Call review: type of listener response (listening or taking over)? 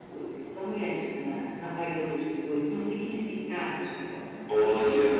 taking over